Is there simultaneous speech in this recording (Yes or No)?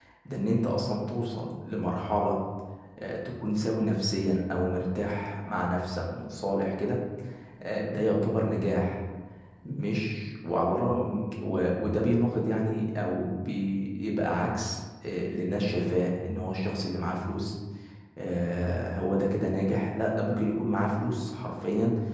No